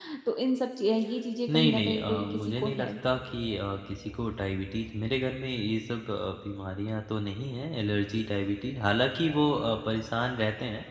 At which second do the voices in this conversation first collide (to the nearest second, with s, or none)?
1 s